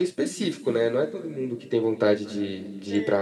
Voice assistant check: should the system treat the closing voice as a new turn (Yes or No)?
No